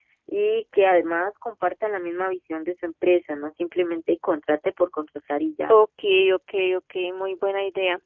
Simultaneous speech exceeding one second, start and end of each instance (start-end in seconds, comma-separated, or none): none